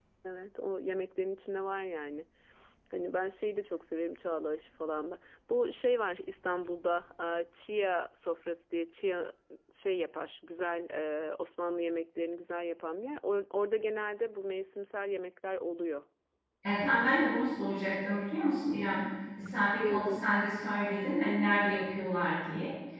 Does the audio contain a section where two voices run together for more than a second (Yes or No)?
No